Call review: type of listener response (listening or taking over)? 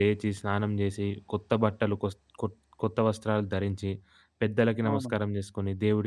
listening